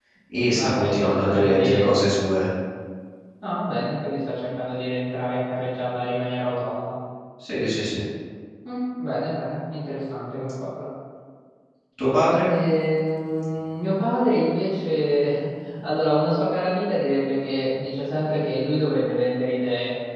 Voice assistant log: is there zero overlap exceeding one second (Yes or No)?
No